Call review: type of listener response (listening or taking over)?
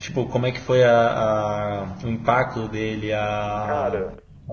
listening